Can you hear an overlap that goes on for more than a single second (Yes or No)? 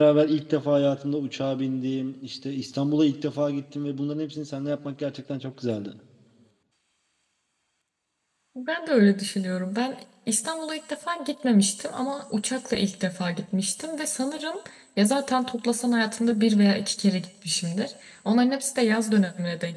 No